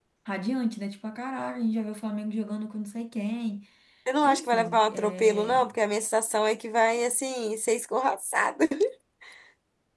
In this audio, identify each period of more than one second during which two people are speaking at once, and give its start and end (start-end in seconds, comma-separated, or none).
4.2-5.7